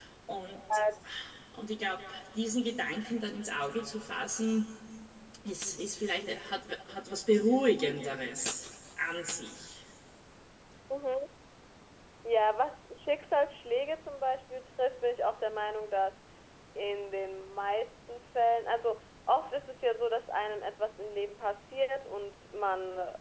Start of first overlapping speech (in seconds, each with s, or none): none